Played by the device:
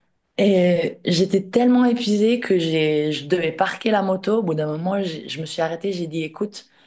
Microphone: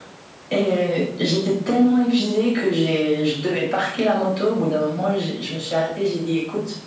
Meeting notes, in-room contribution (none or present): none